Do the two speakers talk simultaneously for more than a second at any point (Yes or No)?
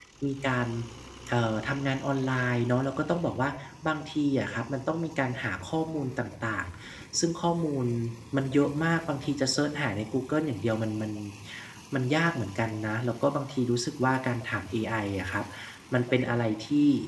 No